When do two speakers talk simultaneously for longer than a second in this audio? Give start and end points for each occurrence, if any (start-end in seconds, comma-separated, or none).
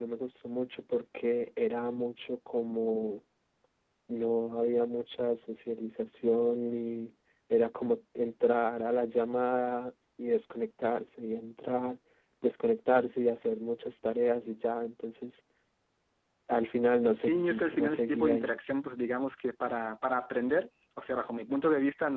17.2-18.5